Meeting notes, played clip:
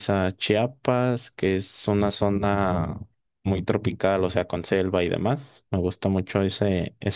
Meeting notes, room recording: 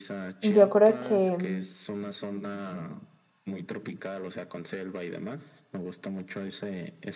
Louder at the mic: user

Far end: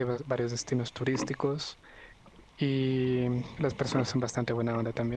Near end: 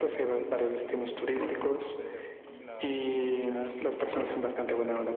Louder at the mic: echo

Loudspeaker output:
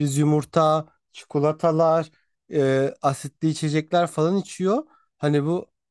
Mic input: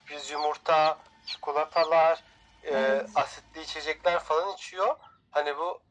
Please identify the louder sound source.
echo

